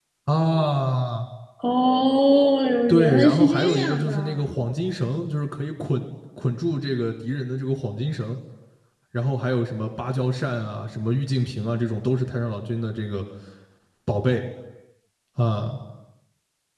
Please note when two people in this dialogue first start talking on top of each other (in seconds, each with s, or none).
2.9 s